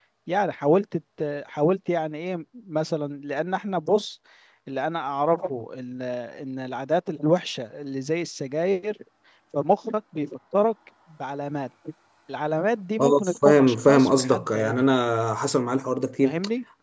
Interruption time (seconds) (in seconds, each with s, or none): 13.0 s